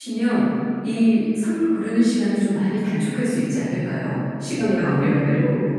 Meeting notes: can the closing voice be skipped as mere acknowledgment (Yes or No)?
No